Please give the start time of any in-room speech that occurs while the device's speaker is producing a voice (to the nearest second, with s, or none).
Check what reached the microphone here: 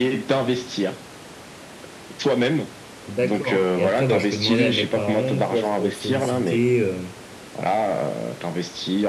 3 s